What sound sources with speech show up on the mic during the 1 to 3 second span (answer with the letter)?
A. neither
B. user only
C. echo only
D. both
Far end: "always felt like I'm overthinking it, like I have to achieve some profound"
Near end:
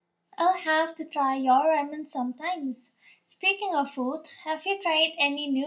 B